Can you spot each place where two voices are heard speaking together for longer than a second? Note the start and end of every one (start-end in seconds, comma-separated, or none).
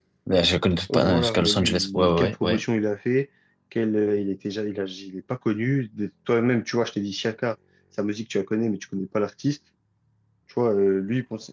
0.9-2.6